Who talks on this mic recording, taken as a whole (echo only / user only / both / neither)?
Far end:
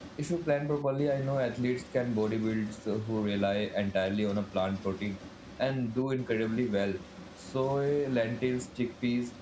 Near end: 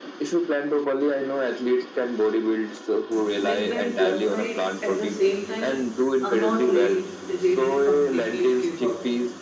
both